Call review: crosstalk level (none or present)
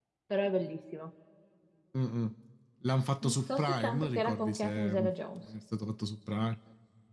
present